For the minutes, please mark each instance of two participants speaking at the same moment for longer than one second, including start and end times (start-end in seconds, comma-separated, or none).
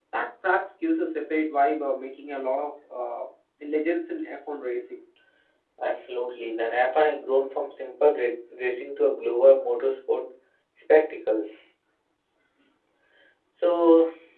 none